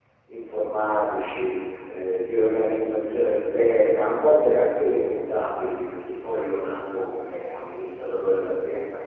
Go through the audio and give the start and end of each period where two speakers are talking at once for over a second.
none

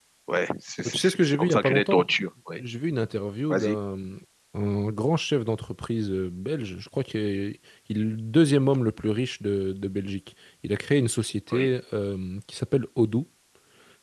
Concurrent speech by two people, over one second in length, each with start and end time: 0.8-2.1

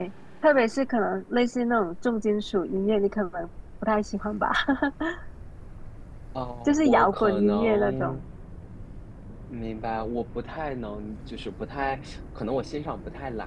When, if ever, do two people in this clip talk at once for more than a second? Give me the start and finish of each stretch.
6.6-8.2

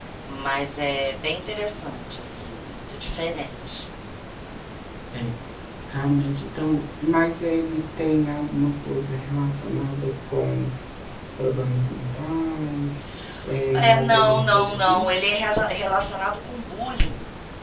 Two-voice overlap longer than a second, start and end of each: 13.7-15.1

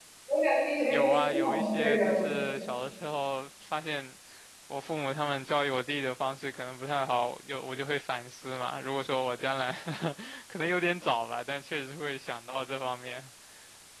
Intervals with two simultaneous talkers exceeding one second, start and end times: 0.9-2.3

